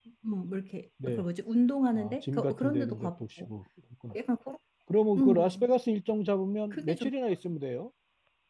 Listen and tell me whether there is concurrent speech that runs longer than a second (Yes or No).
Yes